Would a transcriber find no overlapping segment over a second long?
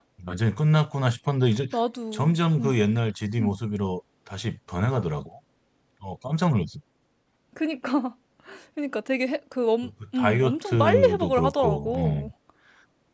No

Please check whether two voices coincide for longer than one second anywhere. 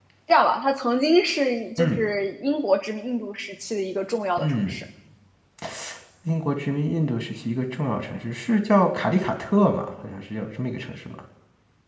No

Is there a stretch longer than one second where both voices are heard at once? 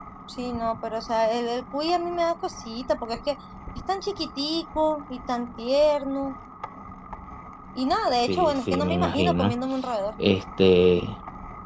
Yes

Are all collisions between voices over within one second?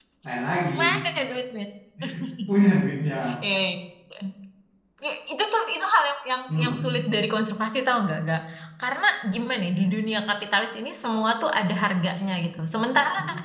Yes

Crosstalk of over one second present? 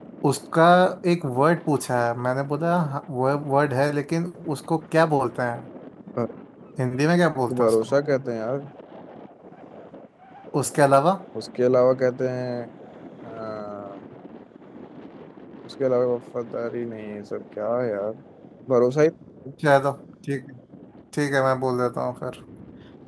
No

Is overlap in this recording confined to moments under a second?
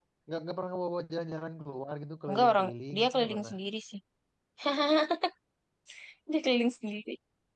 No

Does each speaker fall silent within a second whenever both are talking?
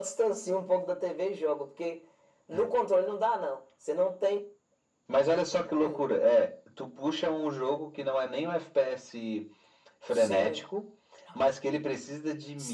Yes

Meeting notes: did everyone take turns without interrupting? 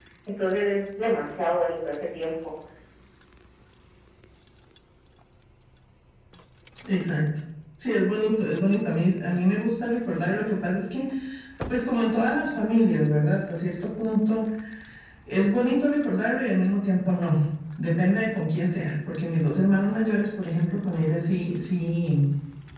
Yes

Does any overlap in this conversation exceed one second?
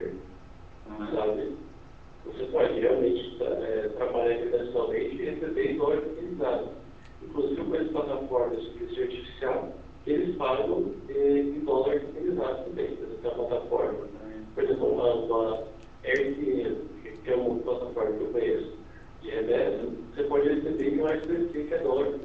No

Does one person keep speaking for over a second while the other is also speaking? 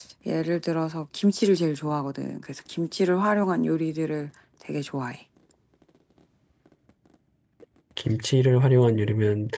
No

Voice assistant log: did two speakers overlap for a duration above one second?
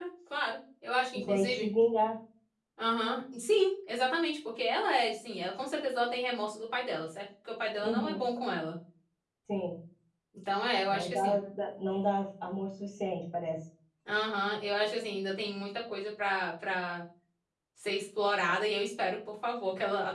No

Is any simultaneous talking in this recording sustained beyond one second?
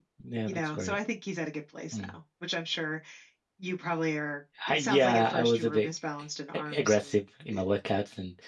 Yes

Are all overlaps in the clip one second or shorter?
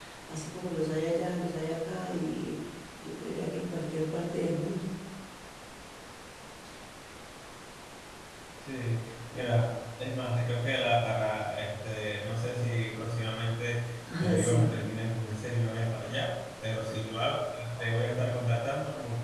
Yes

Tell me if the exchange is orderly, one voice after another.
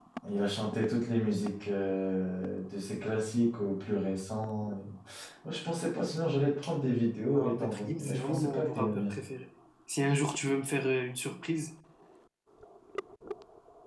No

